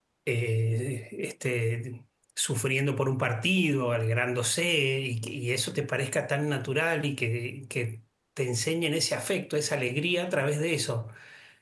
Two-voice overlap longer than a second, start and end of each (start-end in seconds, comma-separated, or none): none